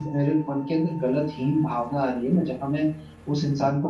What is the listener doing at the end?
listening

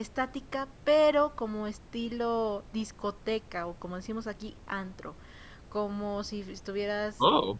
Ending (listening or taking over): taking over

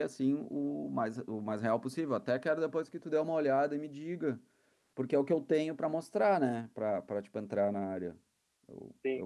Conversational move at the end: taking over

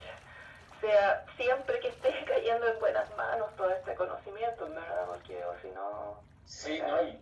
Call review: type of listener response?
taking over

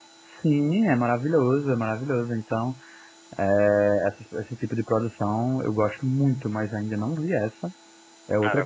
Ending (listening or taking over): taking over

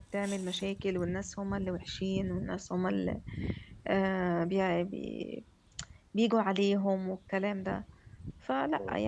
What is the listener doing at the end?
taking over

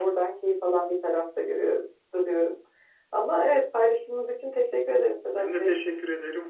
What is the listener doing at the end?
taking over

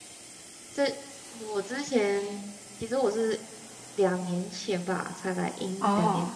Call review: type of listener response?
listening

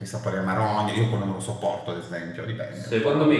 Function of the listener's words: taking over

